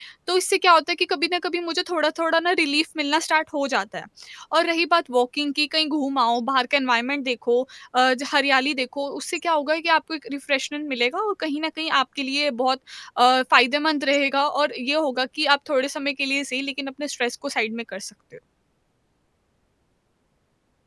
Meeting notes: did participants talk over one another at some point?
No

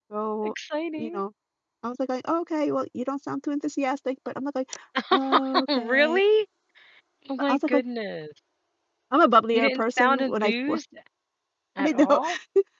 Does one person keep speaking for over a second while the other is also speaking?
Yes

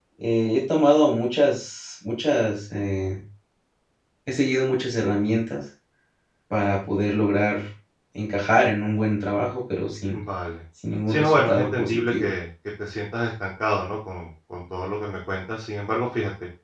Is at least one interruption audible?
Yes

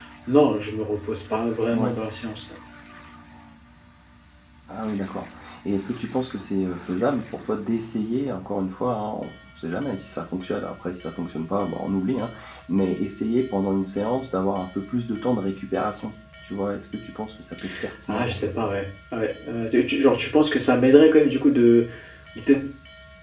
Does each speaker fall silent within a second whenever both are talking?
Yes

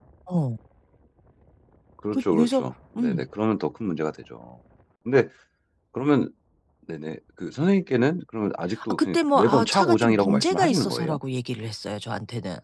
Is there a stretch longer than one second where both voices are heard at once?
Yes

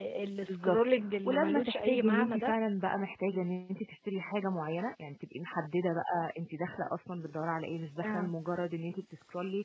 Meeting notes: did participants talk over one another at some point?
Yes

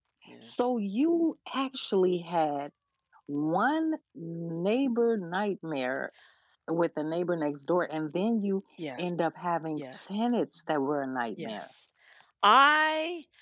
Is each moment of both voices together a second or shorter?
Yes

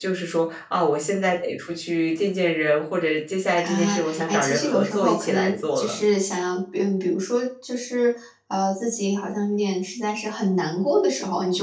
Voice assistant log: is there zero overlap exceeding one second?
No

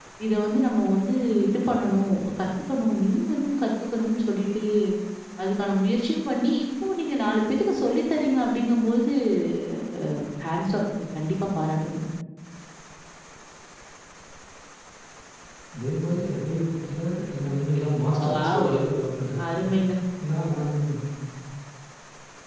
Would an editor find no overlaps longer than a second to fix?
Yes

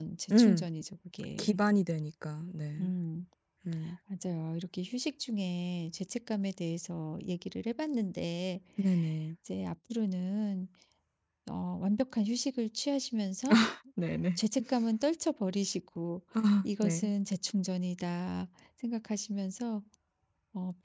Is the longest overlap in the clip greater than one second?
No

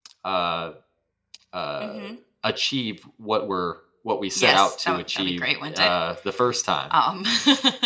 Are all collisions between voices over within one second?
No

